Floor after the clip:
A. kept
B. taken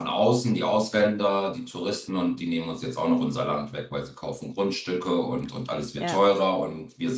A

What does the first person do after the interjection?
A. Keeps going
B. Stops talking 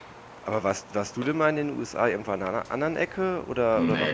B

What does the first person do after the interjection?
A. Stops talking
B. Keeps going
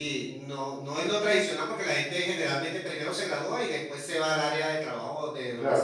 A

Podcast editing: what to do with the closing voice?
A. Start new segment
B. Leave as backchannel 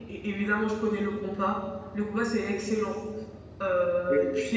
B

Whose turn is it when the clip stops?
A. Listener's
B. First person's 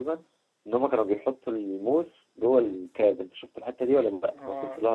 A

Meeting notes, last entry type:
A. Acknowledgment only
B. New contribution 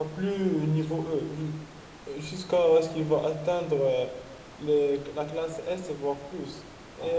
A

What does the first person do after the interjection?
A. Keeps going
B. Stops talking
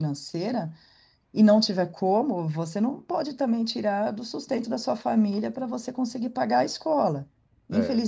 A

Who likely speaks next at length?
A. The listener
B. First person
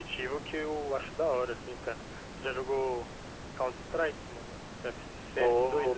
A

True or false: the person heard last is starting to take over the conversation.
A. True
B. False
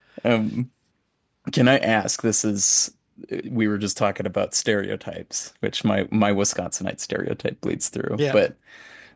B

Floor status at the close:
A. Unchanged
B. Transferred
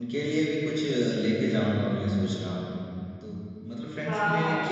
A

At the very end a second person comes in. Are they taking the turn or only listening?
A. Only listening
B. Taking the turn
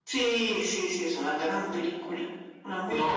B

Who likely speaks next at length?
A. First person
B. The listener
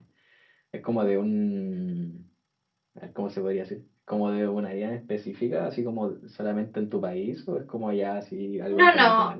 B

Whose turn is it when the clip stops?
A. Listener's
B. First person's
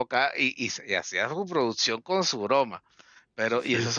B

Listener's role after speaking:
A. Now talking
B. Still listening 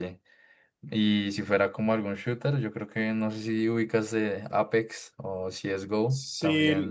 A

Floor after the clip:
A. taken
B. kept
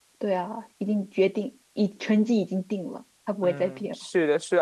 A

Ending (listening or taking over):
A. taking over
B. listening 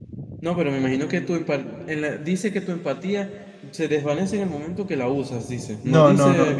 A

